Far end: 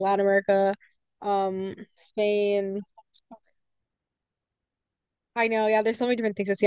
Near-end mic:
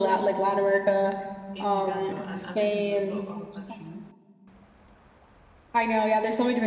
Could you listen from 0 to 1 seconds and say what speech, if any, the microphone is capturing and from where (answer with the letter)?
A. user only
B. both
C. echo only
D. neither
C